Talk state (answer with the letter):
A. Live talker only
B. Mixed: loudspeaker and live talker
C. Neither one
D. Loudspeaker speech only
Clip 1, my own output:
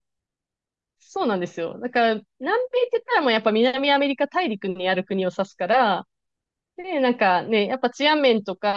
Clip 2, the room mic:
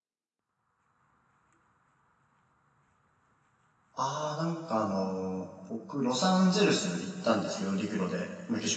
A